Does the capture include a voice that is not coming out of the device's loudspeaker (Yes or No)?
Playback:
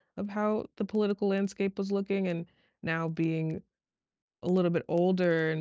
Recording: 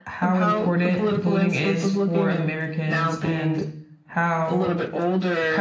Yes